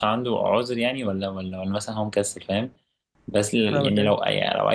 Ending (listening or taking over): listening